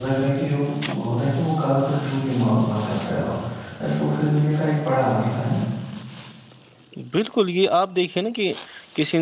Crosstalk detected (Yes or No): No